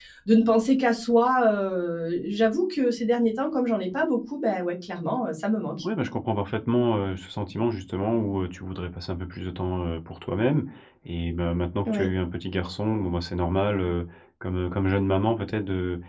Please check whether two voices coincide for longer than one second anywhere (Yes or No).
No